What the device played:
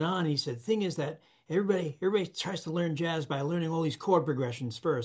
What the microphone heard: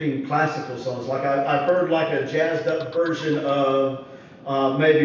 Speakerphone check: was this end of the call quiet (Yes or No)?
No